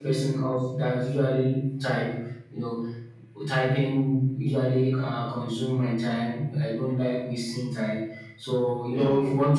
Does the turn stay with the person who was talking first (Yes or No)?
Yes